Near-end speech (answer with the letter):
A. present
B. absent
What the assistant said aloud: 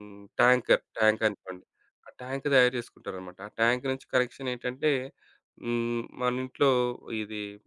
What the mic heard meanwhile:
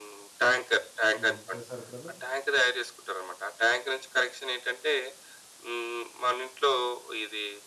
A